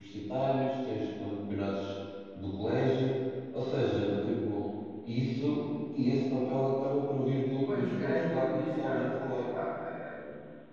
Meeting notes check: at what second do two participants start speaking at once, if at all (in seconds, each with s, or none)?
7.6 s